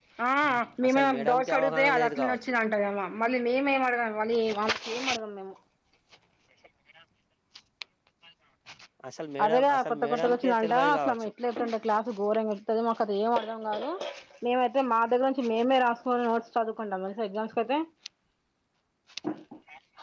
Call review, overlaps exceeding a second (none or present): present